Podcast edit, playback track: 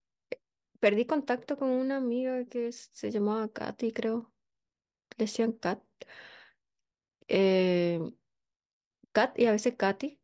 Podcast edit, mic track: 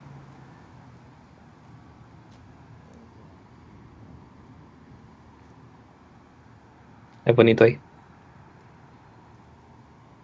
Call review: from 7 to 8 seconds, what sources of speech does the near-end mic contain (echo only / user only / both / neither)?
user only